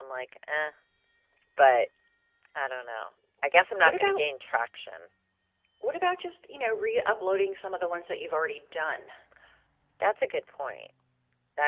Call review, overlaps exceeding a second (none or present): none